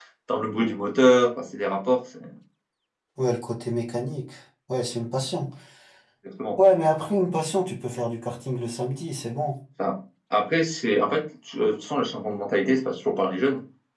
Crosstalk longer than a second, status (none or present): none